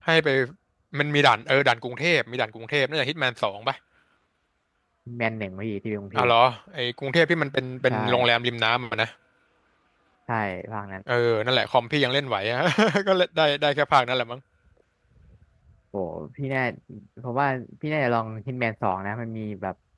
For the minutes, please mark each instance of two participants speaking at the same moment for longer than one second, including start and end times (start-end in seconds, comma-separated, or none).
none